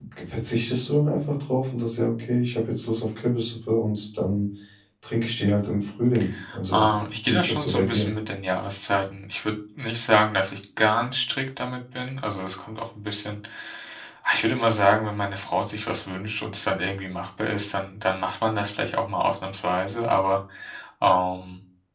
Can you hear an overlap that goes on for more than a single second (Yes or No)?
Yes